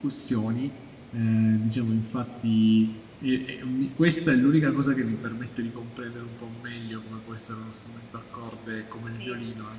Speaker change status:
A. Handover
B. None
B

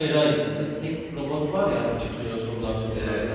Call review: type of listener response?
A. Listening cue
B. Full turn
B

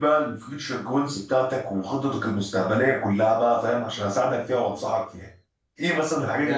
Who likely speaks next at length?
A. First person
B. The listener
B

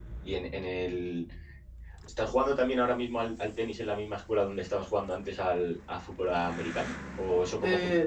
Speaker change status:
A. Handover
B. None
B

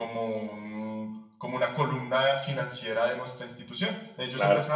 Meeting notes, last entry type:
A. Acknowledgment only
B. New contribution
A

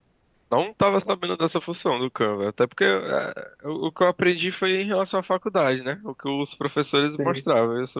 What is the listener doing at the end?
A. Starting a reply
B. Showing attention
B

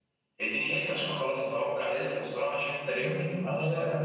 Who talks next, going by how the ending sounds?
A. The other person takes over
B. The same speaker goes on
A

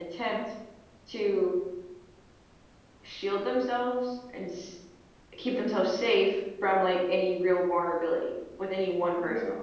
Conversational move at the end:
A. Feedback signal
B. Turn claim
B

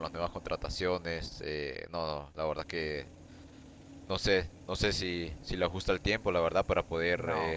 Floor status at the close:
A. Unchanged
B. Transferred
B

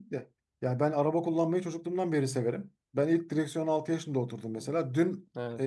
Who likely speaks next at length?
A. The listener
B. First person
B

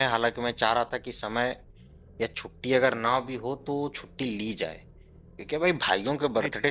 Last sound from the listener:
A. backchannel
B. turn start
A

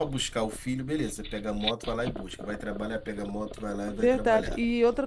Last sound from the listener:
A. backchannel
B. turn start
B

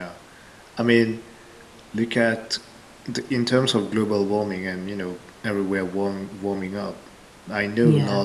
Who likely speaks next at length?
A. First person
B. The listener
A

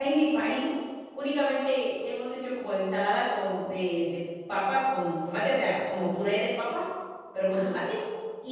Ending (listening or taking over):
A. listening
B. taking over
A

